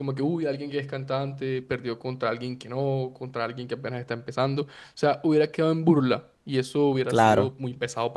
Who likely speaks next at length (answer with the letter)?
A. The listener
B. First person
B